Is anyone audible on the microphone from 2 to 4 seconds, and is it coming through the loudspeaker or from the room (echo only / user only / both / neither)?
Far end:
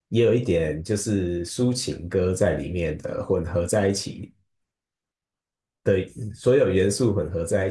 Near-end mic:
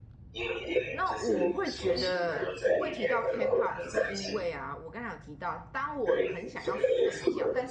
both